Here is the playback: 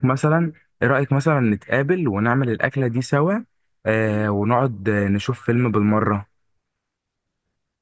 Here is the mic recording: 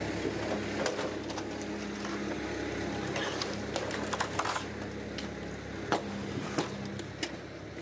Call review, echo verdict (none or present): none